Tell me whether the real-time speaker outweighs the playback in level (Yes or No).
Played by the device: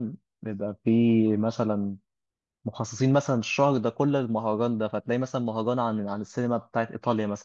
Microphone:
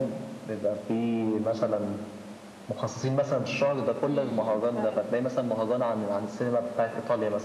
No